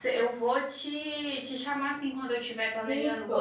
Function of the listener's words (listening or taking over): listening